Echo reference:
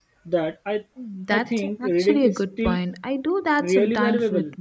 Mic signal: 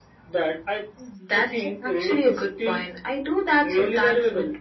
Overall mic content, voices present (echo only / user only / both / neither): echo only